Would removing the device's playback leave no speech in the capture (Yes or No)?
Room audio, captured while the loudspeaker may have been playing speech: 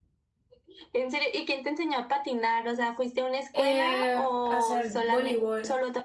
No